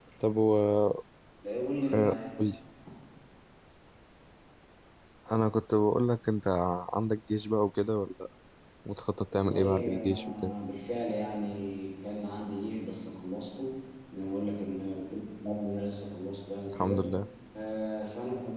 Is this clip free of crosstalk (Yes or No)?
No